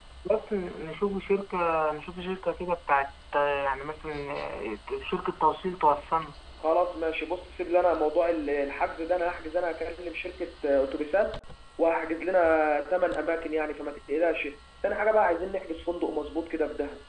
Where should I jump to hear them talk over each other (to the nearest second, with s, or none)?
none